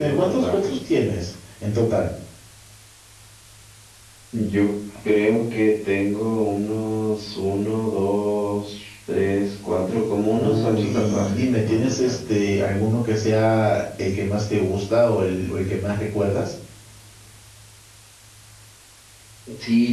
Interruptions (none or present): present